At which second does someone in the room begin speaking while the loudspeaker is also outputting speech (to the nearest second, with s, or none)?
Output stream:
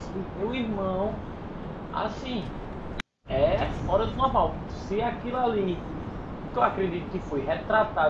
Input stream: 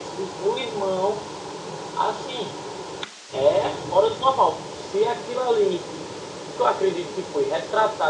none